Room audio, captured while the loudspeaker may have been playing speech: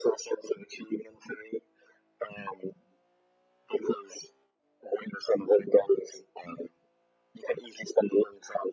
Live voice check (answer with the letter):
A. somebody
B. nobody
B